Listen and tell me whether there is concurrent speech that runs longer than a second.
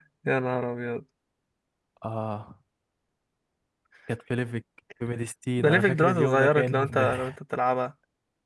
Yes, from 5.6 s

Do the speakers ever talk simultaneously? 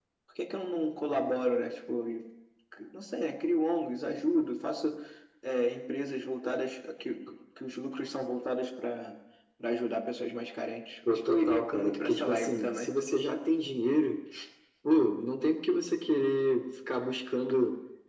Yes, from 11.1 s

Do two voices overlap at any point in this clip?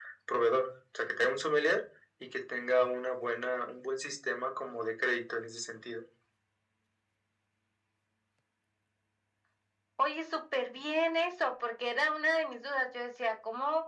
No

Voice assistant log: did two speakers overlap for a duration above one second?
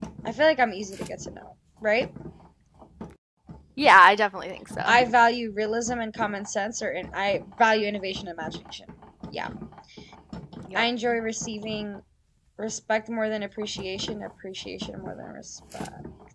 No

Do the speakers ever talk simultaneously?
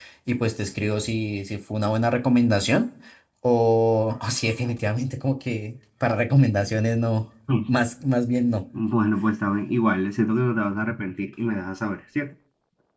No

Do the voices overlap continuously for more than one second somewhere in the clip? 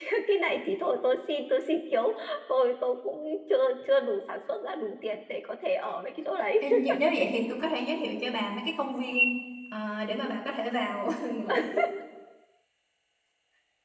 No

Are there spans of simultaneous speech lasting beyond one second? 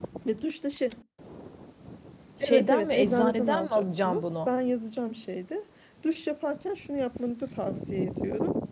Yes, from 2.4 s

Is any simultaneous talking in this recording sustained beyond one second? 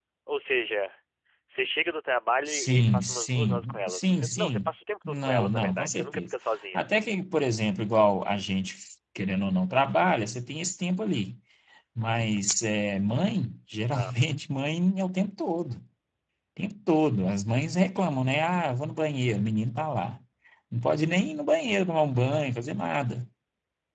Yes, from 2.4 s

